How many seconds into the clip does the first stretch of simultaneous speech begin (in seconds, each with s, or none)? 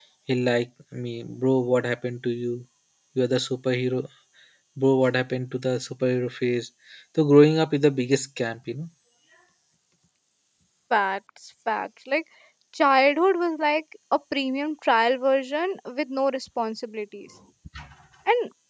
none